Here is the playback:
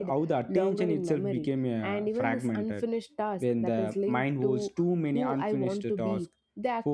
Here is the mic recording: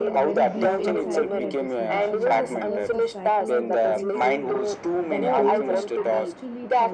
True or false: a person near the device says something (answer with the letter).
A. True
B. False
A